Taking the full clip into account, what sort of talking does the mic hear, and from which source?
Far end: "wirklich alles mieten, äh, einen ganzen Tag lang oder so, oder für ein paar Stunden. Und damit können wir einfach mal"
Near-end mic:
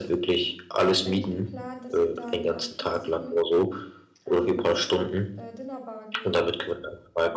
both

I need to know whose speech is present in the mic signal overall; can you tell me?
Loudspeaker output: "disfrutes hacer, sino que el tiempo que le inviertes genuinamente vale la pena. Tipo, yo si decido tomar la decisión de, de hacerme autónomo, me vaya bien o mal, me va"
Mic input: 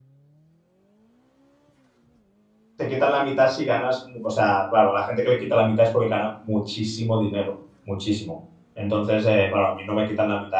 user only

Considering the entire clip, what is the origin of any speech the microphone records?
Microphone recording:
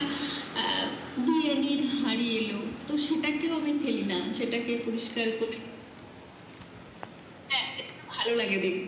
echo only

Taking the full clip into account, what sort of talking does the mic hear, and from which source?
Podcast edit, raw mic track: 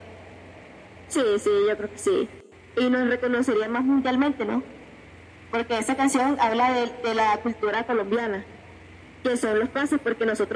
echo only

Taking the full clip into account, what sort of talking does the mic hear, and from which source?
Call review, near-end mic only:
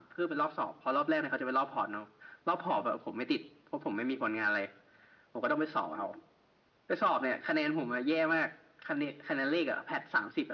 echo only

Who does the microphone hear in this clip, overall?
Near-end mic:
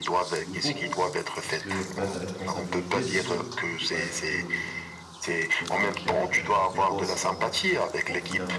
both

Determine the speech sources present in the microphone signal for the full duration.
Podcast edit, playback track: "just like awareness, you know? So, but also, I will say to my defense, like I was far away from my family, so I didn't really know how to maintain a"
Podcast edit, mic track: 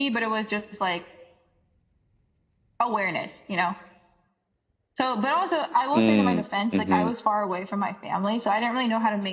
both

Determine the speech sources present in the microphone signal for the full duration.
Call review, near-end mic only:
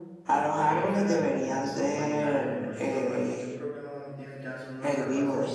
both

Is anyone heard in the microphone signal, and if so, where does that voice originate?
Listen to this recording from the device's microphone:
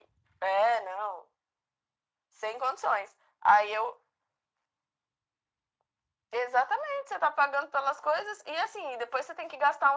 echo only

